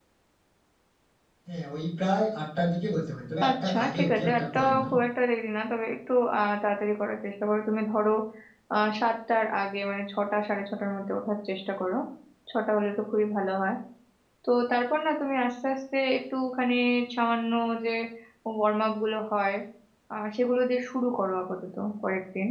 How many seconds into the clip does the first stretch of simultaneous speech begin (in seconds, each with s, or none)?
3.4 s